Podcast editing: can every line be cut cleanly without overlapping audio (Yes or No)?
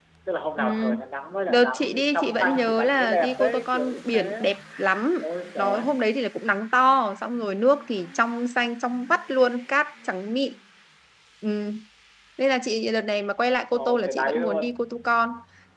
No